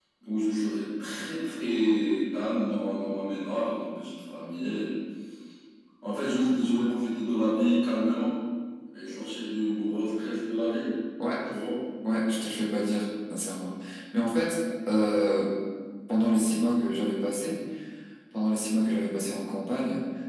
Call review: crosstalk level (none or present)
none